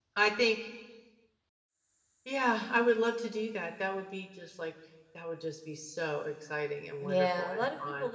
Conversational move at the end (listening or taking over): taking over